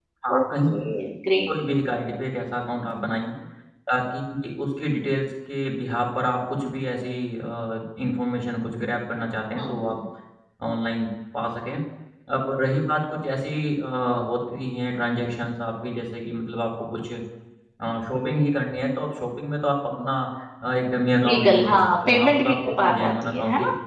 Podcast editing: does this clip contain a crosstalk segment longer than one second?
Yes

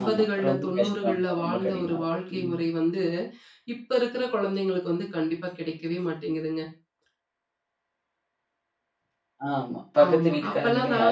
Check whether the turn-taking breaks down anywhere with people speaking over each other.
Yes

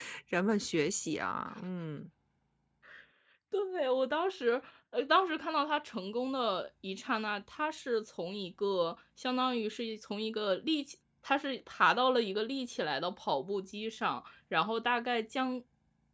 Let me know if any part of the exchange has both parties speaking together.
No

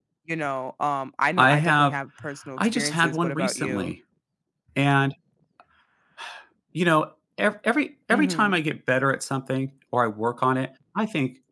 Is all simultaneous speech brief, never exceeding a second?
No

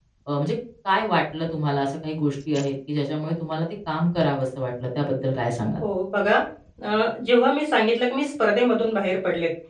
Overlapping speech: No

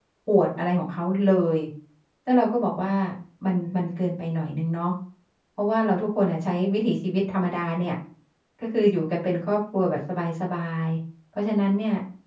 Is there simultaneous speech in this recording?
No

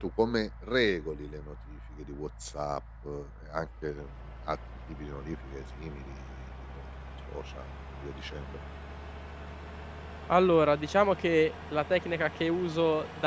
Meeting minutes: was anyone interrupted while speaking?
No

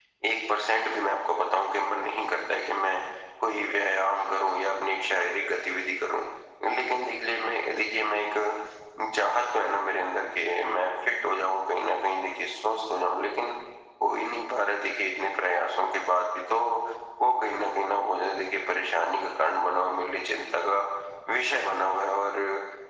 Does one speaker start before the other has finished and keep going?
No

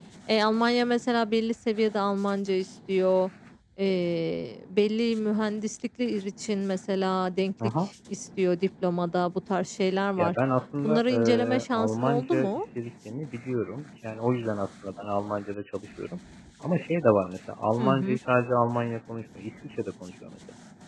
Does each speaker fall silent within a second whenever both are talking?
No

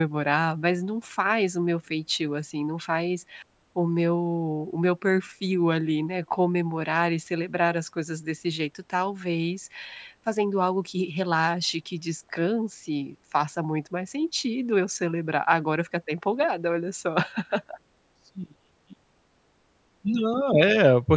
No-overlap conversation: Yes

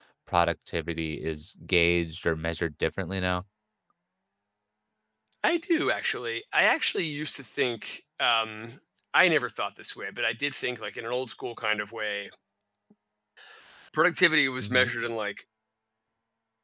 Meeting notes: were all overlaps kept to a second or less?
Yes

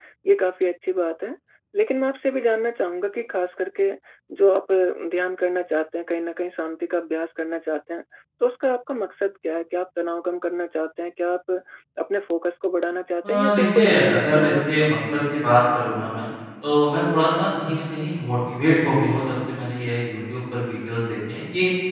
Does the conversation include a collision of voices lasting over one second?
Yes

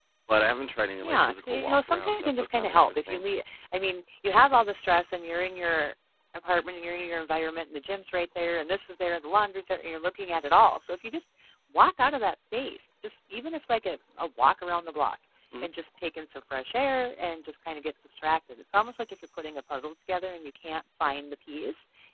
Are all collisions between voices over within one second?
No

